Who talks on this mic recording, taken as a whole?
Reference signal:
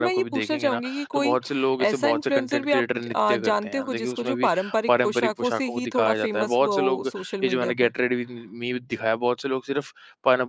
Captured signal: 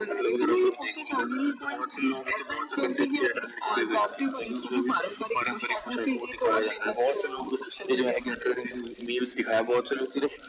echo only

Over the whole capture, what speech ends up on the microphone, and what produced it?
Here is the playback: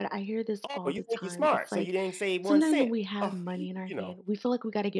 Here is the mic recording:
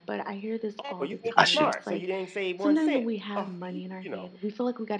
both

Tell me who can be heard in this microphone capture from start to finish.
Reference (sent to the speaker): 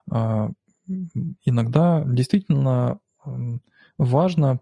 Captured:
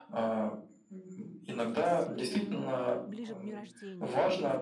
both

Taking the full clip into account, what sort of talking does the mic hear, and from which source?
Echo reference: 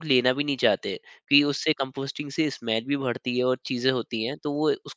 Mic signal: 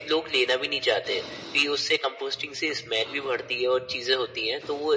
echo only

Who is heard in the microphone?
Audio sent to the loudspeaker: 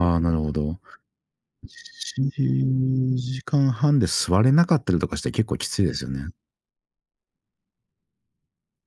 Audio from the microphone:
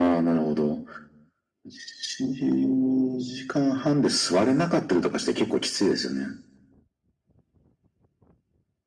echo only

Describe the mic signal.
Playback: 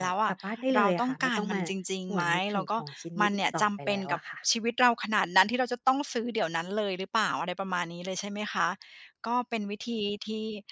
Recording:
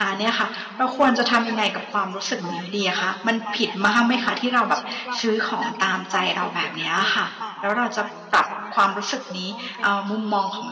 both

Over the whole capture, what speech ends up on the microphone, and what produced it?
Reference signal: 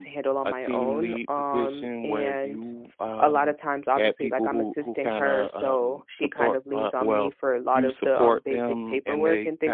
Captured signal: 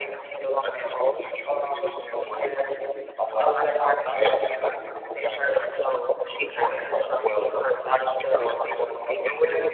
echo only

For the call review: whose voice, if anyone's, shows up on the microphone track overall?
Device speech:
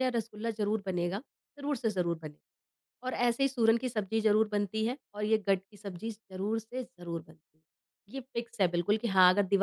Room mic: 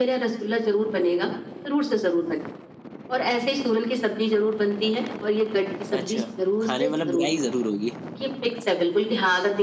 both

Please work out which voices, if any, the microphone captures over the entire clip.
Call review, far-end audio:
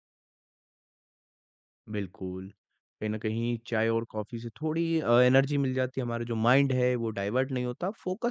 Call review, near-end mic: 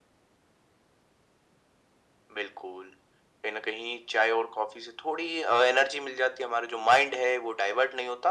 echo only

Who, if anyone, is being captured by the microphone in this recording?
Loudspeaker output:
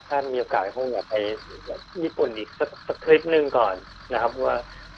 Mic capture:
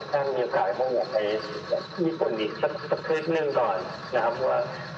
echo only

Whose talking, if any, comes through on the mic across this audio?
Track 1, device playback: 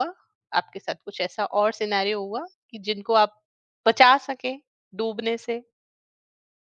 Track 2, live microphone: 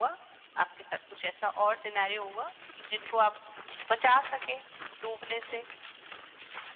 echo only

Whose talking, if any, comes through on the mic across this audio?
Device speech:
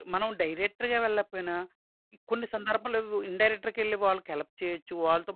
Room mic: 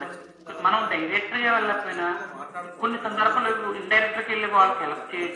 both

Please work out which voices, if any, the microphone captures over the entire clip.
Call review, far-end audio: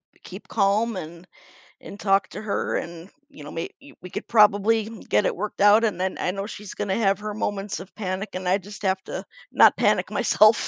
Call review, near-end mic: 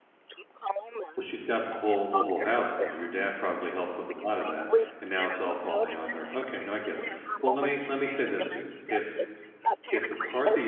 both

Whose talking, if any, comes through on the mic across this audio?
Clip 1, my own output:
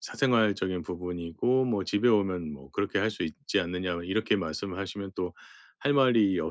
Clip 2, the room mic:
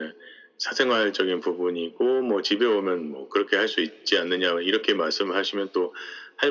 echo only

